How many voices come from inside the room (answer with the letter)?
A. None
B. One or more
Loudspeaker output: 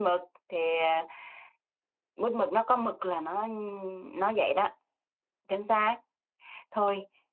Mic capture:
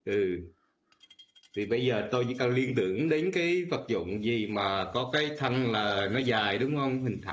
B